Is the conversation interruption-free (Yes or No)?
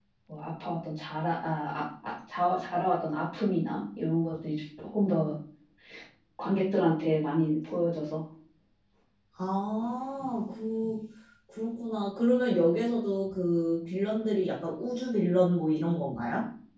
Yes